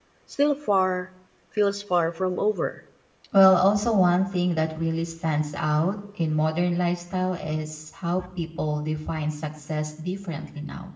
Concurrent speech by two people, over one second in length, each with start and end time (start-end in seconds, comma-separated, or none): none